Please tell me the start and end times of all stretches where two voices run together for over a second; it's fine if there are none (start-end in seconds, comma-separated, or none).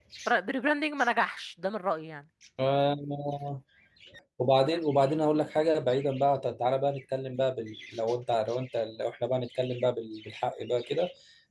none